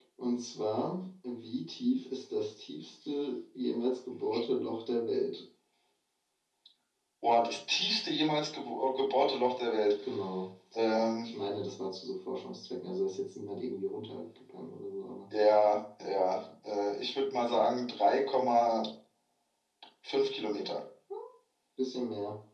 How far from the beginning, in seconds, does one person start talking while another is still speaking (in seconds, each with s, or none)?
none